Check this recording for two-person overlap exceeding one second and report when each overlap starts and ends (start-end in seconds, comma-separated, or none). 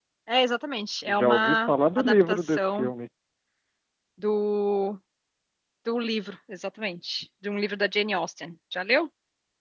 1.1-2.9